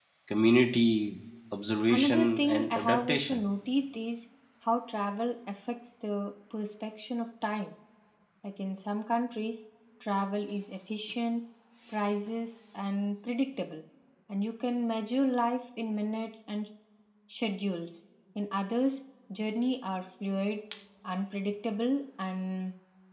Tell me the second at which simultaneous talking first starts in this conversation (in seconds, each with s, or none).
1.9 s